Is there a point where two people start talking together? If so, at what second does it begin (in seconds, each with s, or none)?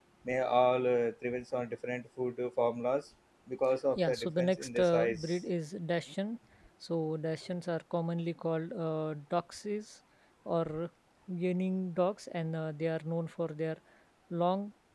4.0 s